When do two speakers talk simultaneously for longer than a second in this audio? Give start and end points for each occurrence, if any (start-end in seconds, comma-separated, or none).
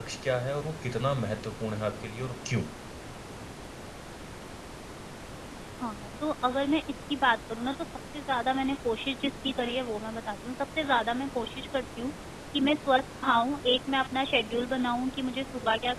none